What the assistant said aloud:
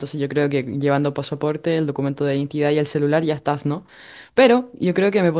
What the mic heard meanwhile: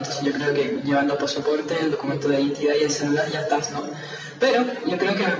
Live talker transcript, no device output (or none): none